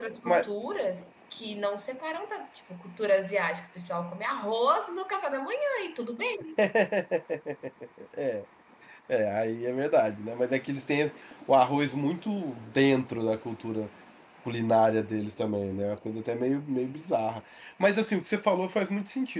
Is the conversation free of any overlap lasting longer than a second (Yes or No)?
Yes